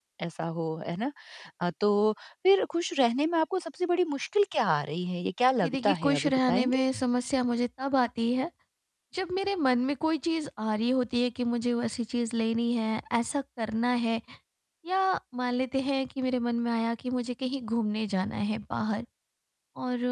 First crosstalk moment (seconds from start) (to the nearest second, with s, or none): 6 s